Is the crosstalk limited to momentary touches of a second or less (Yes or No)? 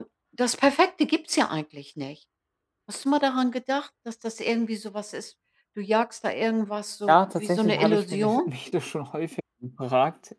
No